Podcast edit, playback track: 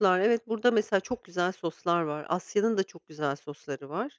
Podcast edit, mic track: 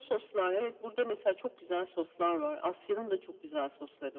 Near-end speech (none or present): none